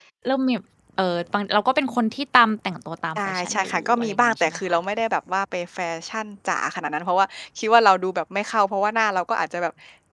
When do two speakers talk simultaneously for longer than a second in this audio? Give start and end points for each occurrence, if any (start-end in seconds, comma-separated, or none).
3.2-4.8